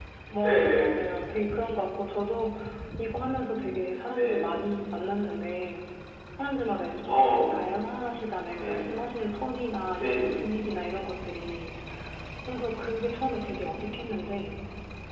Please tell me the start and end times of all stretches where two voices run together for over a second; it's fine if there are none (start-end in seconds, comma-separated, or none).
none